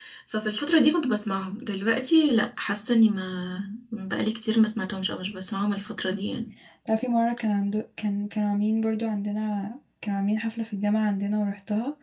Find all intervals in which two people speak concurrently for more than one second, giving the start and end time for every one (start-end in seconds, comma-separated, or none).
none